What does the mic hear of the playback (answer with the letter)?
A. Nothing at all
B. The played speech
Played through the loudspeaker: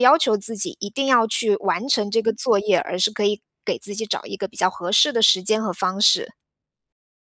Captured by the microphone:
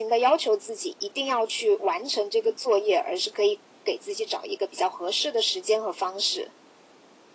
B